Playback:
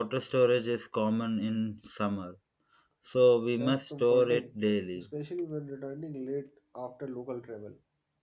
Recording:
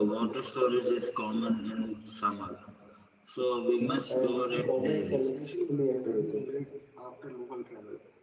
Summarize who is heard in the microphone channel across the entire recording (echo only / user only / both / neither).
both